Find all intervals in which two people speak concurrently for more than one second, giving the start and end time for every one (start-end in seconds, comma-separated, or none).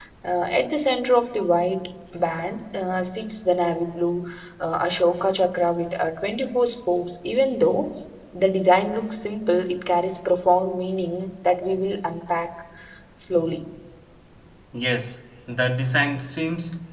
none